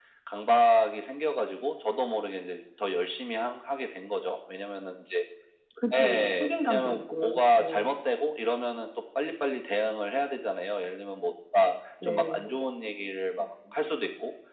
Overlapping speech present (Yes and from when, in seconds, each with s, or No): Yes, from 6.0 s